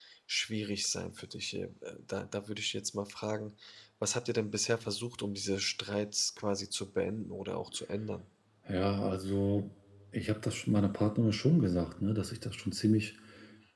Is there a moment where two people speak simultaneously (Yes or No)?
No